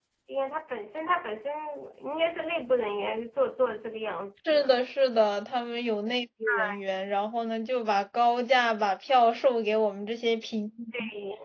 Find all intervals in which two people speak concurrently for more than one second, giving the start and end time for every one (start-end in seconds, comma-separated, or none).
none